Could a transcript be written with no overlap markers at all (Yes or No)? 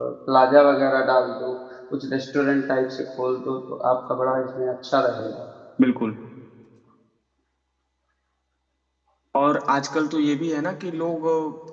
Yes